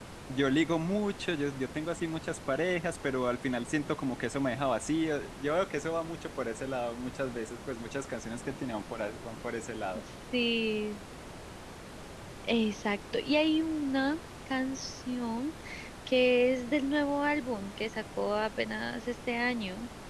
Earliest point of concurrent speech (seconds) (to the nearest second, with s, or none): none